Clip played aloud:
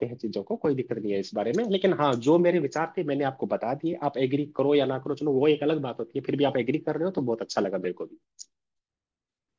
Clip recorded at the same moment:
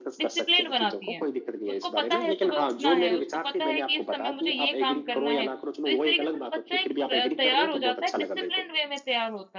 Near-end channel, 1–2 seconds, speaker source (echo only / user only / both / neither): both